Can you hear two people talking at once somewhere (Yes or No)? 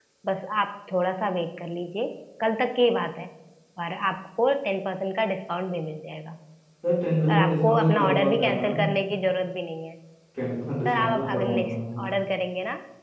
Yes